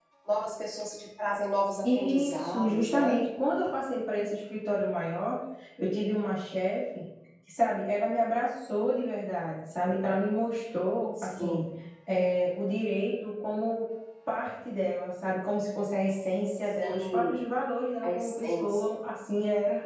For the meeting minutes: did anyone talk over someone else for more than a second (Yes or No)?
Yes